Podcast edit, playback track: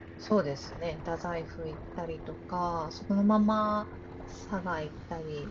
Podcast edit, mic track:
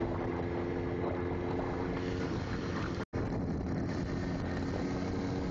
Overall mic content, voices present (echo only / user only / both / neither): neither